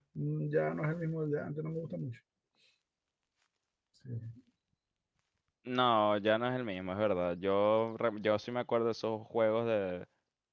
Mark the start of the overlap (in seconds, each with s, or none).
none